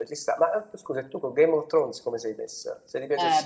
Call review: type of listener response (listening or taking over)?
taking over